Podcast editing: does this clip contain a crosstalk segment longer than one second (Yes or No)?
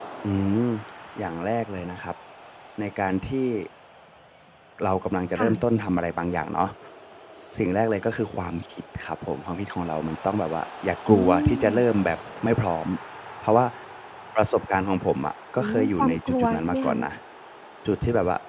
Yes